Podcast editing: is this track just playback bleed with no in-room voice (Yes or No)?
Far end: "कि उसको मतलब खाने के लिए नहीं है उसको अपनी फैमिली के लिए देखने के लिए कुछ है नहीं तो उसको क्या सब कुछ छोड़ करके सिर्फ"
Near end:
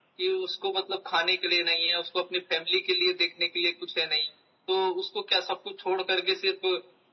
Yes